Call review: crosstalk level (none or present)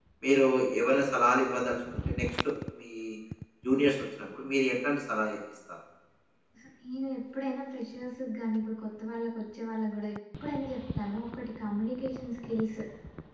none